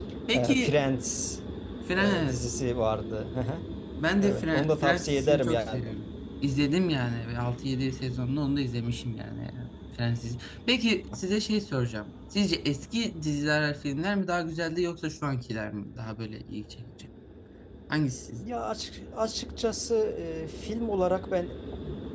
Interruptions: present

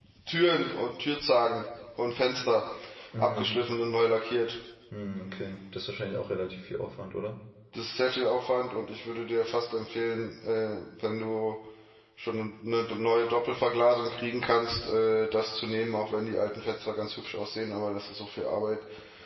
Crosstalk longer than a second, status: none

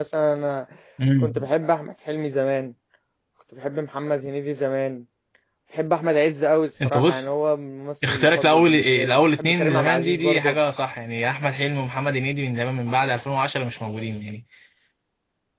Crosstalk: present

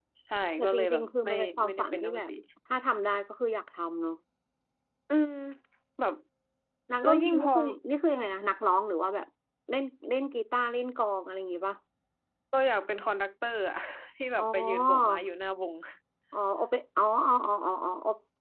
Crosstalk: present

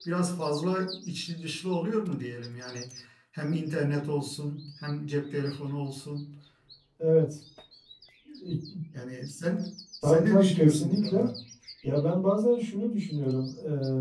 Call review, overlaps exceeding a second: present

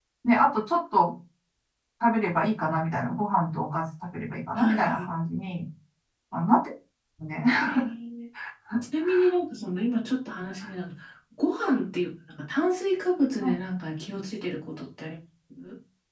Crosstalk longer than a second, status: none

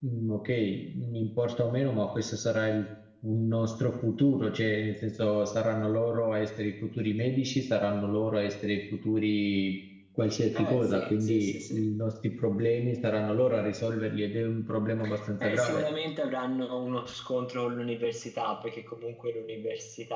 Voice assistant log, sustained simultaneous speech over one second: present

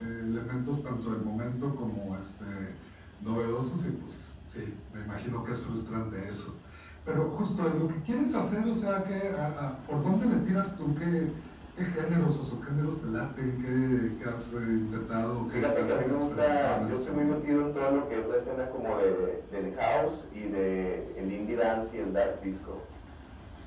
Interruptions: present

